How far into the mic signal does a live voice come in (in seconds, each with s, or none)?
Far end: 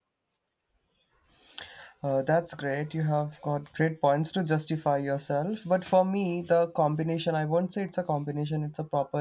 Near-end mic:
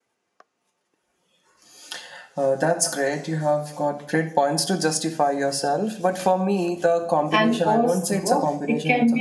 7.3 s